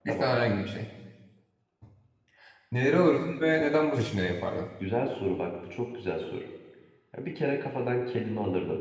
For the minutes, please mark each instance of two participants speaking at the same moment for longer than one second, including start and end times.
none

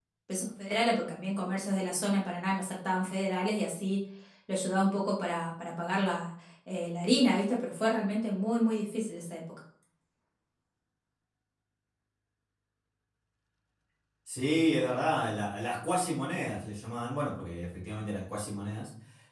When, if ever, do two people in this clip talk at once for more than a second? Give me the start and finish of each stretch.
none

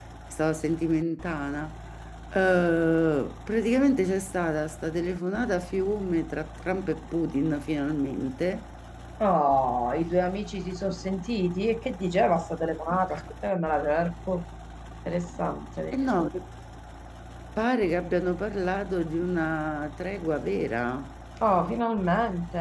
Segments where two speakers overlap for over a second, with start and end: none

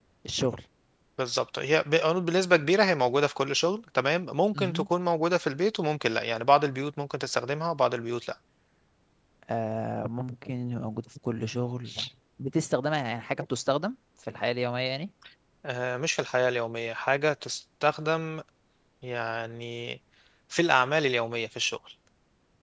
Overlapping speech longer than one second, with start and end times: none

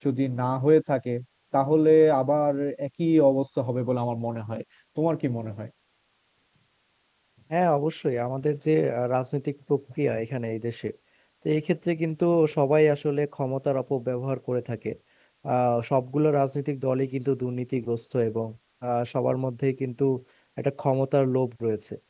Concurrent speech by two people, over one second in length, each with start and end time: none

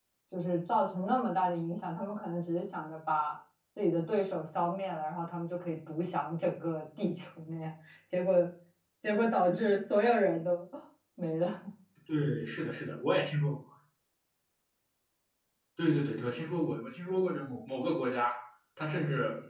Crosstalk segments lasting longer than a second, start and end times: none

